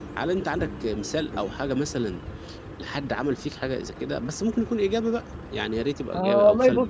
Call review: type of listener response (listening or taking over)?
taking over